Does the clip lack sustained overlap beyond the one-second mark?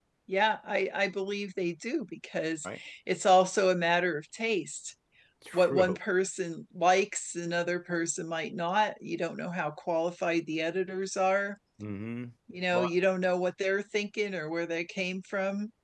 Yes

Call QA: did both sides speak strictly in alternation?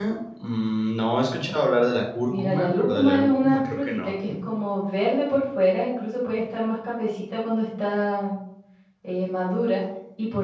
No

